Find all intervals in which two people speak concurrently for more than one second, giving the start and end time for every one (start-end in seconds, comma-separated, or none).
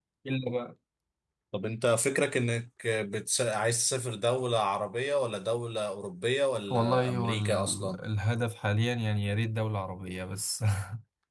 6.7-8.0